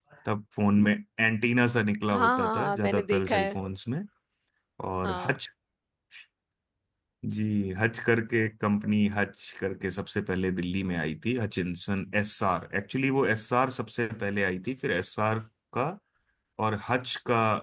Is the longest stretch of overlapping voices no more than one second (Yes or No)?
No